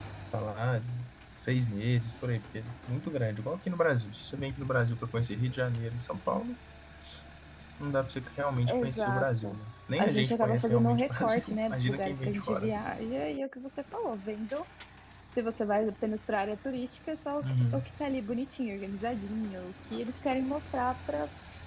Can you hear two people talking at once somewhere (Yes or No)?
Yes